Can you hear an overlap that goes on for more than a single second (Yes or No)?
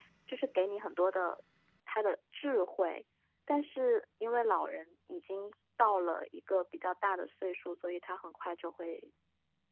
No